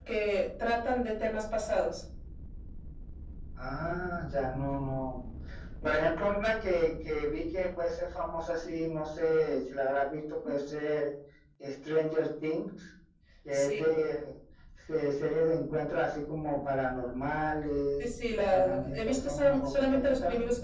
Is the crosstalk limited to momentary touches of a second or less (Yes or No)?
No